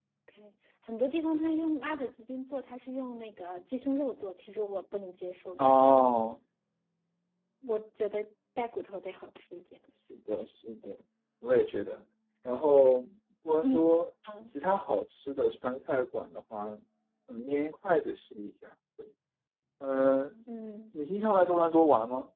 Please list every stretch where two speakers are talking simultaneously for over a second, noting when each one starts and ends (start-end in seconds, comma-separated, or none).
none